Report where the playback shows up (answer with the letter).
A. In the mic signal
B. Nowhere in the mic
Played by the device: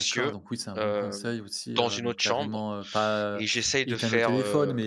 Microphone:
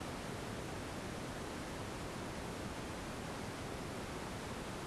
B